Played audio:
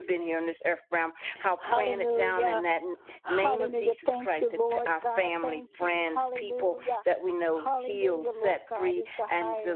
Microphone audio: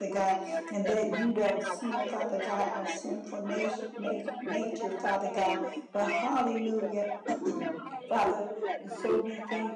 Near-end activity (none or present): present